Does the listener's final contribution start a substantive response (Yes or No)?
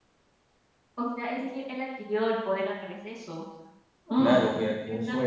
Yes